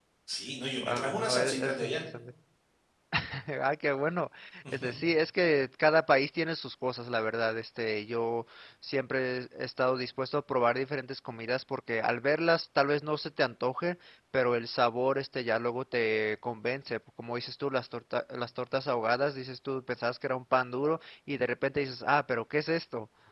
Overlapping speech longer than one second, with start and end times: 0.8-2.0

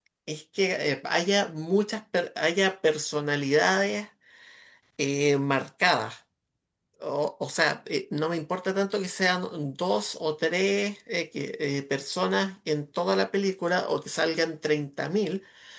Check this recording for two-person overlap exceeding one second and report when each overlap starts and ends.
none

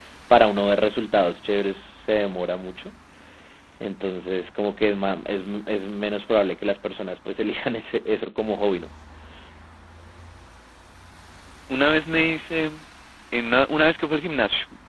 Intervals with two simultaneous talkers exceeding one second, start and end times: none

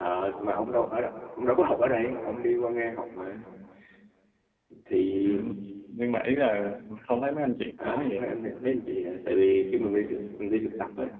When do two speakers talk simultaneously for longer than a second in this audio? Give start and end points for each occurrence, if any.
none

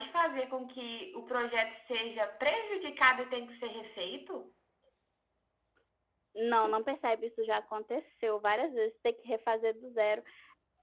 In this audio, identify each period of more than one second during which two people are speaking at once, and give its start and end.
none

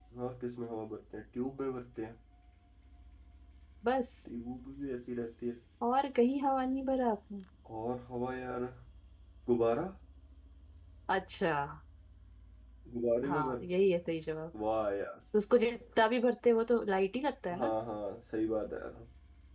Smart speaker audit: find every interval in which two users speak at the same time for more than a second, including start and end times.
none

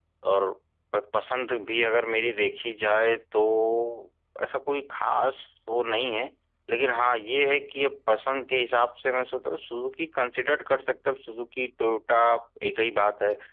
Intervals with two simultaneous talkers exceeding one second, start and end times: none

